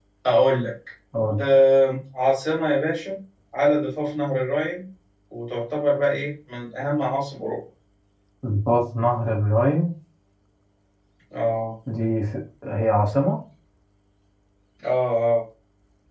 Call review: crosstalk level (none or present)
none